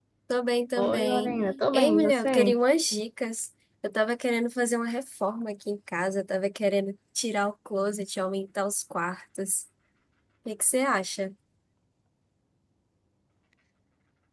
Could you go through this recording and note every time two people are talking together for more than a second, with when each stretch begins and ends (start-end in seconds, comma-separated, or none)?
0.8-2.6